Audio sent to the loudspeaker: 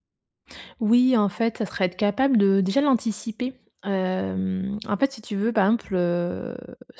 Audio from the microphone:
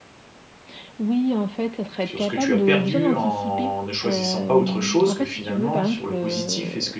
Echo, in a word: present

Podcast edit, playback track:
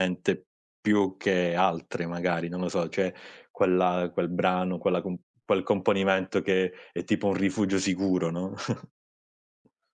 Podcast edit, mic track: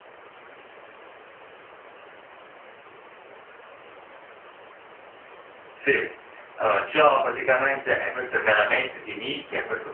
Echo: none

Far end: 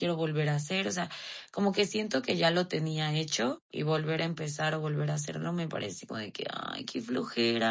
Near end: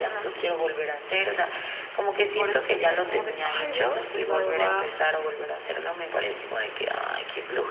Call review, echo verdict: present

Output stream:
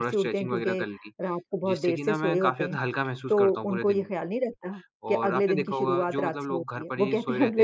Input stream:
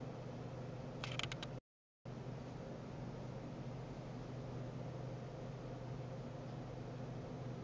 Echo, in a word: none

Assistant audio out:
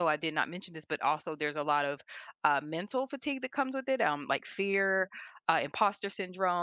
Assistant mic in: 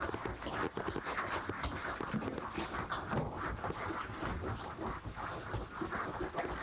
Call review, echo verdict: none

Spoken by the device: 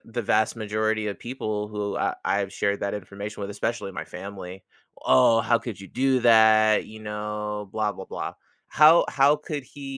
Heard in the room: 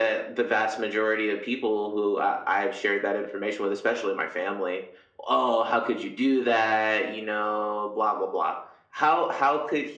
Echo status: present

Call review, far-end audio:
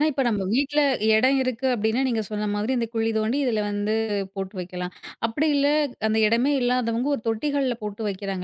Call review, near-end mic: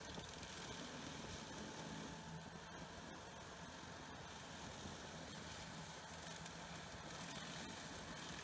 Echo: none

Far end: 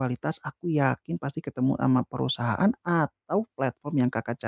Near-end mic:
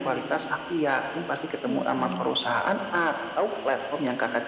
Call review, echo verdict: present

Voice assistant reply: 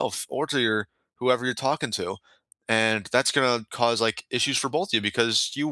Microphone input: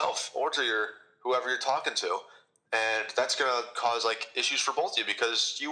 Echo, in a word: present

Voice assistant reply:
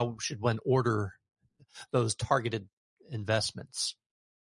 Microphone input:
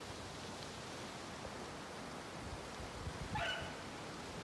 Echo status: none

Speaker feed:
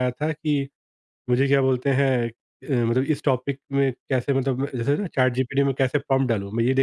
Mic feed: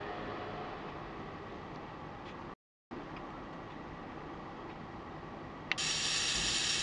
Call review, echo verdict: none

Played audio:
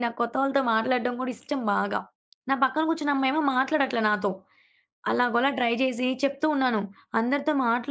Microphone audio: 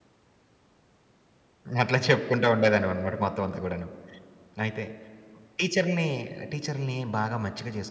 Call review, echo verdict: none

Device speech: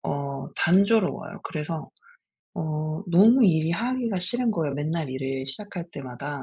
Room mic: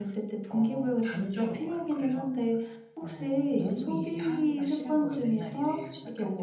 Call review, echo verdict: present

